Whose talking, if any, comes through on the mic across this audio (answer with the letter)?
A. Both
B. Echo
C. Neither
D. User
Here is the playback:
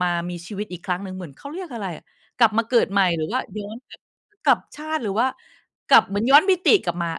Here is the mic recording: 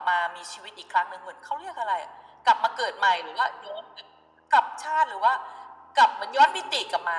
B